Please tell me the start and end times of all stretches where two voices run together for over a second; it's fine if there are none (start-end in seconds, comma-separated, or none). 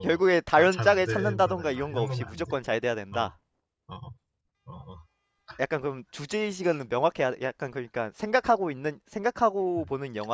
0.6-2.5